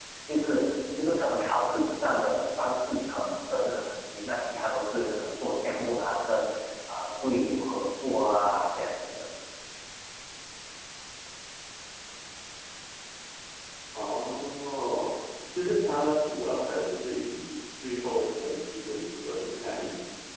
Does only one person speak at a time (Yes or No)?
Yes